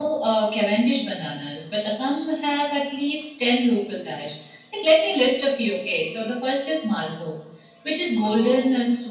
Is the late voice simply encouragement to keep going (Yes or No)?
Yes